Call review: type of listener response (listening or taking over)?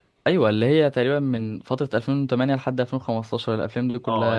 taking over